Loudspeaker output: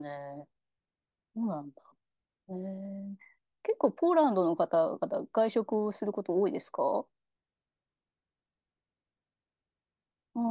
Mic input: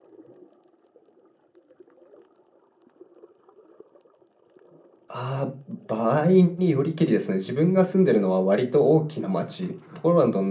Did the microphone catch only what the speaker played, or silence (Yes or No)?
No